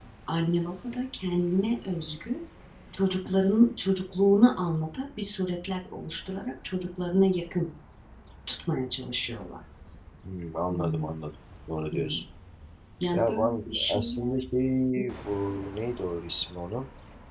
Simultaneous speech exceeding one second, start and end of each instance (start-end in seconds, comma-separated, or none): 13.1-14.4